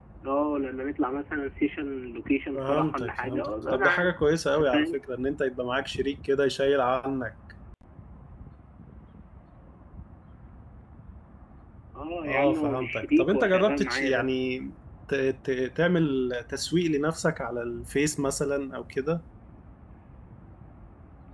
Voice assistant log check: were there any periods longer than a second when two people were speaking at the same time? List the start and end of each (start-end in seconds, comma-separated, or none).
2.5-4.2, 12.2-14.5